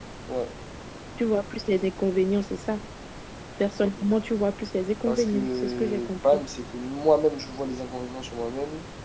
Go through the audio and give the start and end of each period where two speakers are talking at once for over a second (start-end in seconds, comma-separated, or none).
5.1-6.4